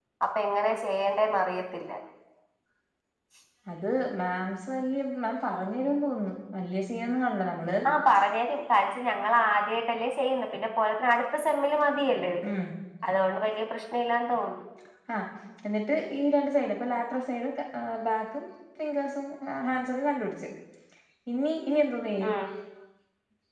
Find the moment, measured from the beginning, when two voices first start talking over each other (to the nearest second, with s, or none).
none